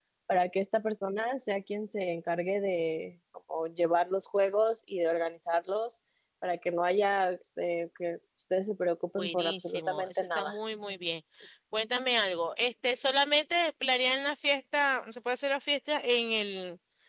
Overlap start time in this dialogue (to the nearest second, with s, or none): 9 s